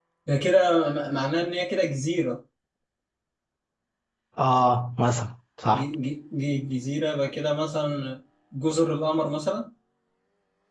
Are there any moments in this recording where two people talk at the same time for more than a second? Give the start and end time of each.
none

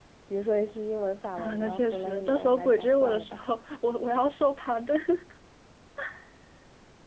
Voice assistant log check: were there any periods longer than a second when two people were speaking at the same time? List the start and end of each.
1.4-3.4

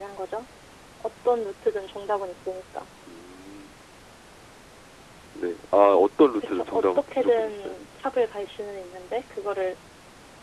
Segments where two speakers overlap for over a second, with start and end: 6.4-7.7

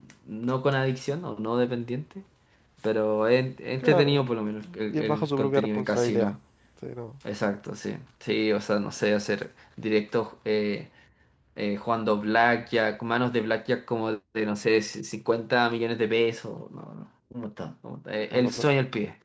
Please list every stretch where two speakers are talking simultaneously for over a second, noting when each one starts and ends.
4.9-6.3

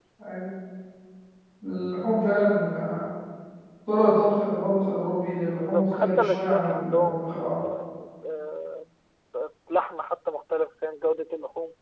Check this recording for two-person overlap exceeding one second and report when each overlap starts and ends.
5.5-7.2

